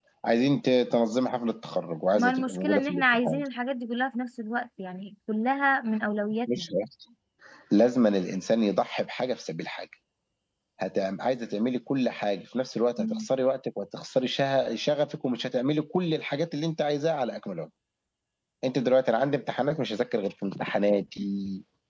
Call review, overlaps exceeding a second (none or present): present